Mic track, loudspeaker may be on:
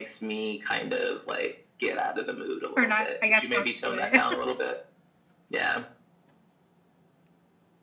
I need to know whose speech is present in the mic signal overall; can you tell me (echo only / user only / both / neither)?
both